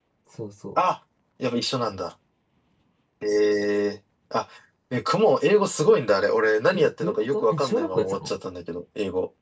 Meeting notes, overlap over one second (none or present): present